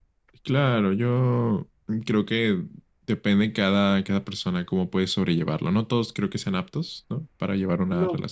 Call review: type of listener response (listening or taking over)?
taking over